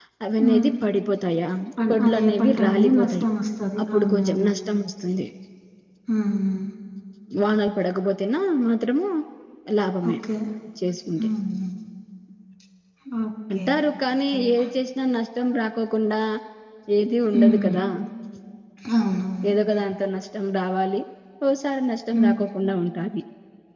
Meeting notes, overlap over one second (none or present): present